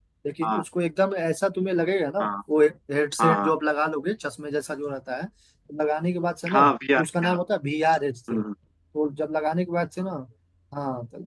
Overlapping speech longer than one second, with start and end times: none

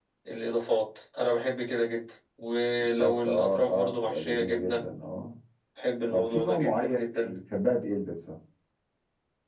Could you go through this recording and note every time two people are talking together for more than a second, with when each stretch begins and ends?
3.0-4.8, 6.1-7.3

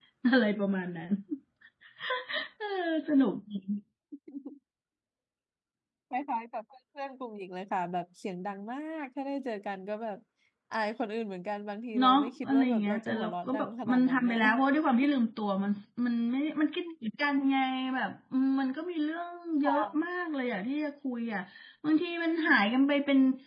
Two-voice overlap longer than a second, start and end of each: 12.0-14.4

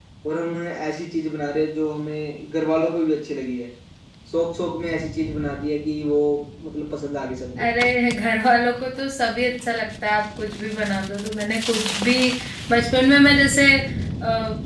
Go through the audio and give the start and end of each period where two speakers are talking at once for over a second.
none

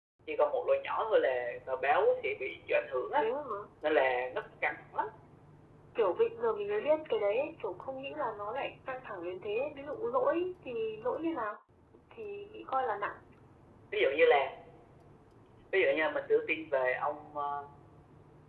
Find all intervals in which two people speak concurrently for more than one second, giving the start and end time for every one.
none

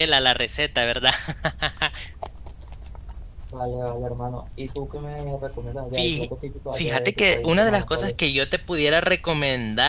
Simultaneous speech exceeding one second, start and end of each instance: 6.7-8.1

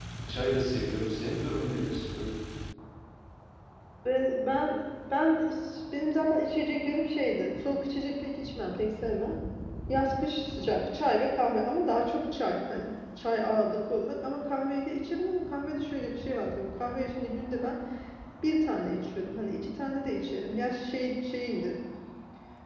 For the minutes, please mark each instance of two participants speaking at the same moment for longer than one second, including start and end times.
none

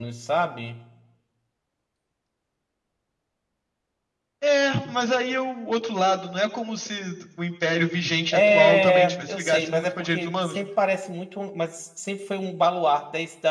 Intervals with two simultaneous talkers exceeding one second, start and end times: 8.3-10.6

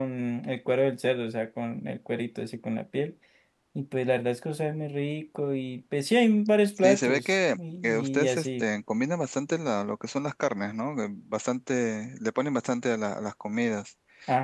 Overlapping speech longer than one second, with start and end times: 6.8-8.6

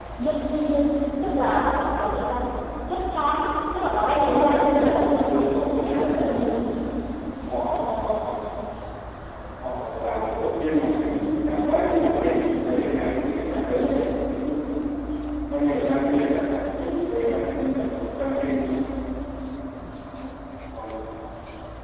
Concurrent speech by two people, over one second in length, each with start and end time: 4.2-6.6

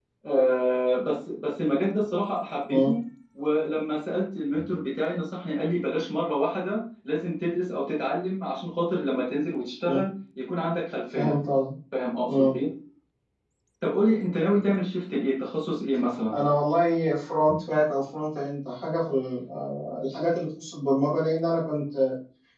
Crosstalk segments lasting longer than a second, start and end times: none

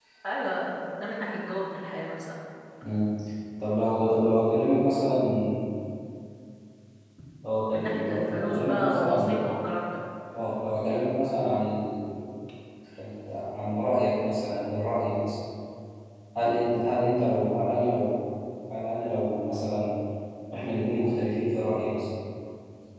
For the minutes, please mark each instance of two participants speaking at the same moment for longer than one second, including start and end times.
7.7-9.4

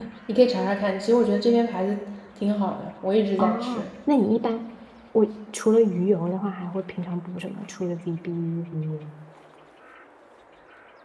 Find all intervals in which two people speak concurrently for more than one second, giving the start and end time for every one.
none

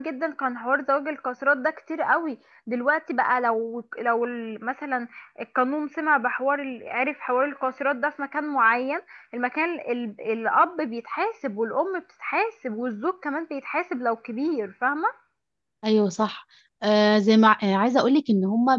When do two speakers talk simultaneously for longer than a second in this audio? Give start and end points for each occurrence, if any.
none

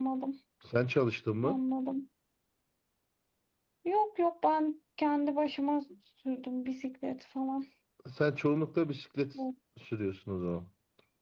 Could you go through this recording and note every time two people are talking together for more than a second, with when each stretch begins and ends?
none

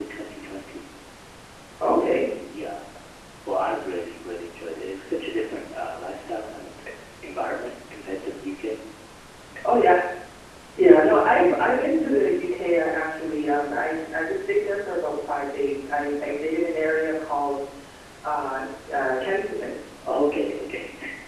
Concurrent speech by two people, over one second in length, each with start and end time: none

